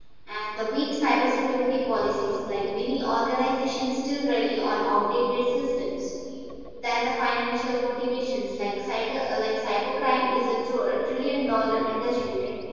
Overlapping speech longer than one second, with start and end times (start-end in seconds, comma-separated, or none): none